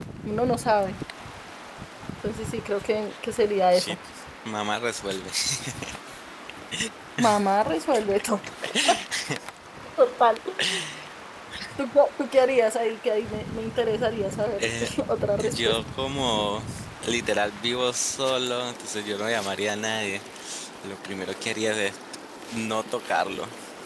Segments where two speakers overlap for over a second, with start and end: none

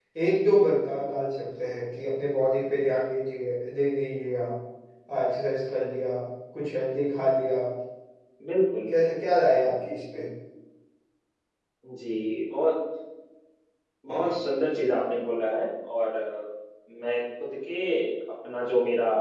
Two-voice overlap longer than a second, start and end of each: none

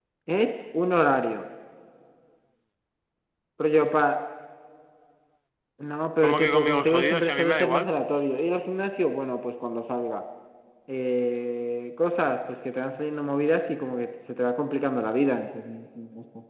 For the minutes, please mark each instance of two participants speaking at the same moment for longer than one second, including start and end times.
6.2-7.9

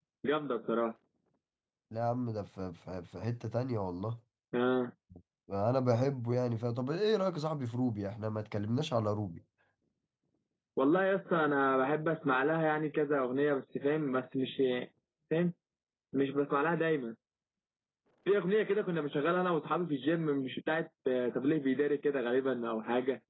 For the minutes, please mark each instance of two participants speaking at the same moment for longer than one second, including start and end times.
none

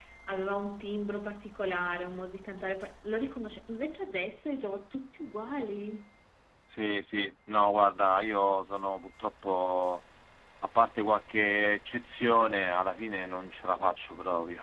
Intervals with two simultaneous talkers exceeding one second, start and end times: none

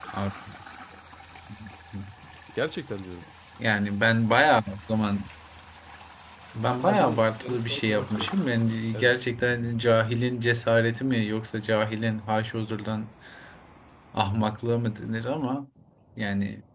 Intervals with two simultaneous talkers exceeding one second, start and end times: 6.9-8.3

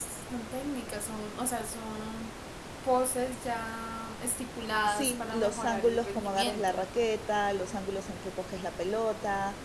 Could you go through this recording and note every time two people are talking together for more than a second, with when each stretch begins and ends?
4.8-6.8

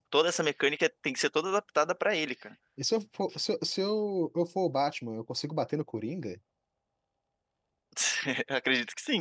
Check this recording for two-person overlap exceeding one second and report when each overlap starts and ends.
none

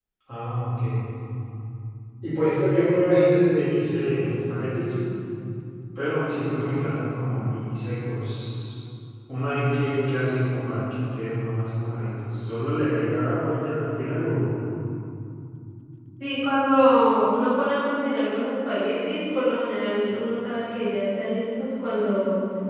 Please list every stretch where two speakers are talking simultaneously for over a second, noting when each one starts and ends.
none

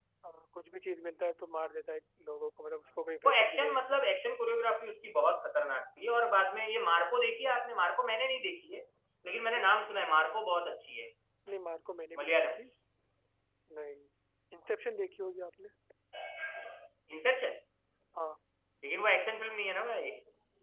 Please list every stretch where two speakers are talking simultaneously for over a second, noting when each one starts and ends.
2.8-4.1

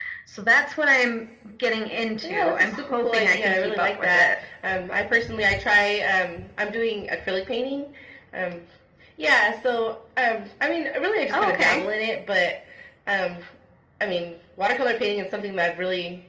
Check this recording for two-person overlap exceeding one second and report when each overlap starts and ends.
2.2-4.3

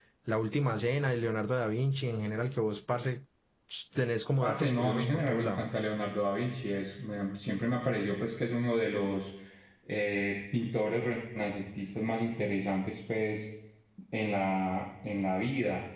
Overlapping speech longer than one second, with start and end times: 4.4-5.6

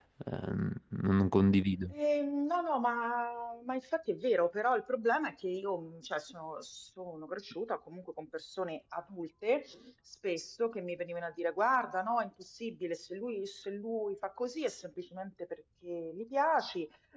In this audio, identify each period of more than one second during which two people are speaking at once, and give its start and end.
none

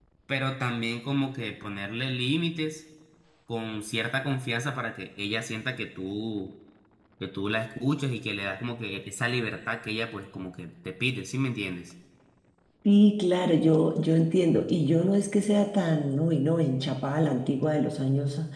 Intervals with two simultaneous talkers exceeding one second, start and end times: none

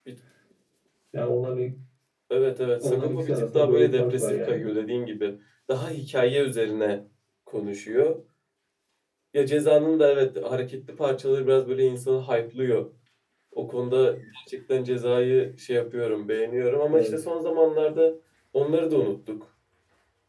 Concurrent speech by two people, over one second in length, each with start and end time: 2.8-4.6

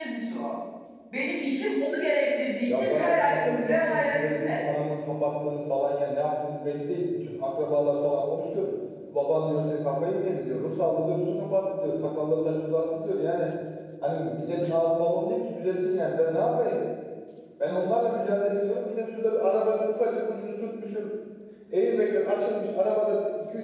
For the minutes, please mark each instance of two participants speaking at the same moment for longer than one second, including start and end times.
2.7-4.6

